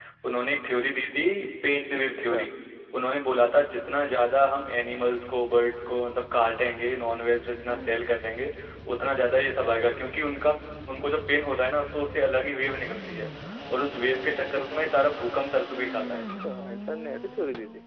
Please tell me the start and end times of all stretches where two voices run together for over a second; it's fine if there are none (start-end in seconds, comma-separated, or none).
none